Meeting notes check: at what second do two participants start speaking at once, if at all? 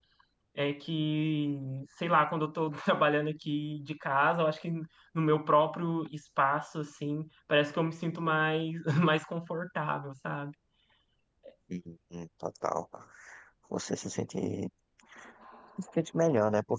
none

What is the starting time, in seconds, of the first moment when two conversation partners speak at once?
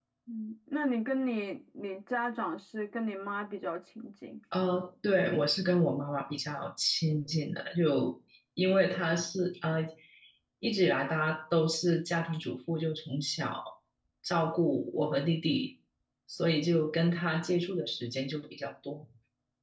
none

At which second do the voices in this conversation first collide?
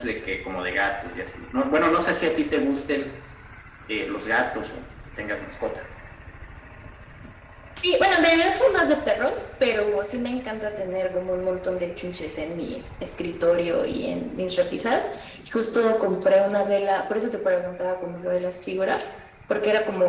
none

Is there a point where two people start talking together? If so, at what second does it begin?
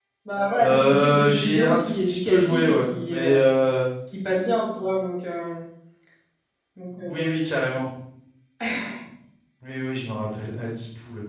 0.6 s

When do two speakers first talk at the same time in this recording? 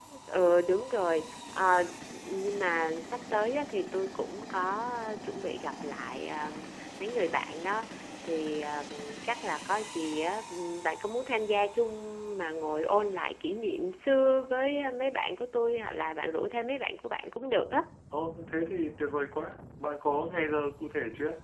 none

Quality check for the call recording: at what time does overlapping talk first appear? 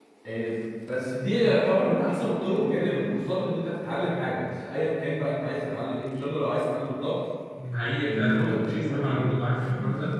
8.0 s

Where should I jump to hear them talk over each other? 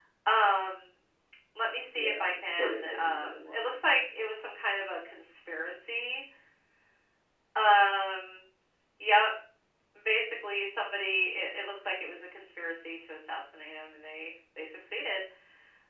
1.9 s

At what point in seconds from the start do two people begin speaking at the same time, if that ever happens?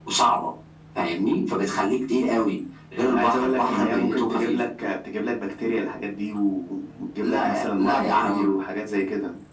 3.1 s

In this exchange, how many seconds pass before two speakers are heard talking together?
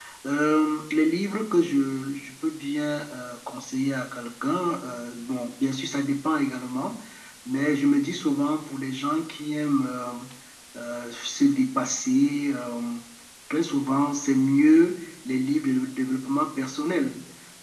none

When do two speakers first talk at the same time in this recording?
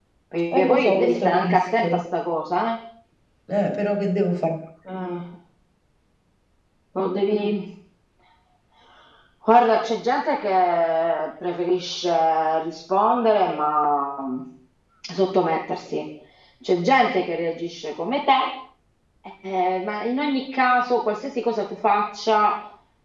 0.5 s

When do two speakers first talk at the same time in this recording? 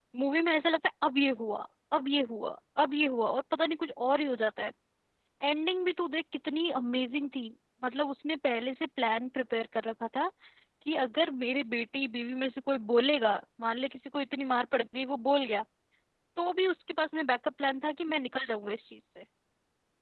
none

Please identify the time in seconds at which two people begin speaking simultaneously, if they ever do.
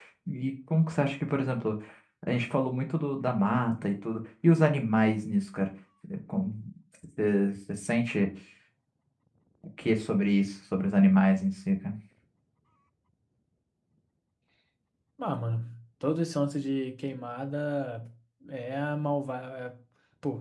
none

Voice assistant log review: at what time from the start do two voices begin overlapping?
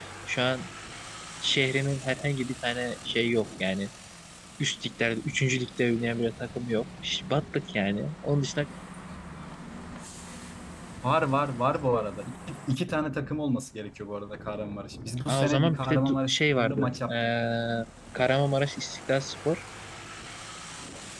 15.3 s

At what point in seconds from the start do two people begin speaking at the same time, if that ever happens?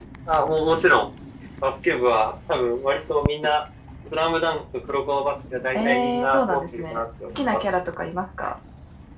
5.7 s

